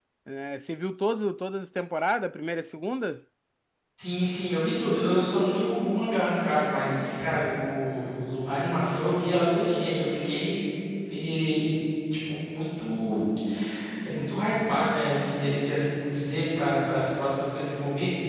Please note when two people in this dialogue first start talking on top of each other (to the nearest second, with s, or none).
none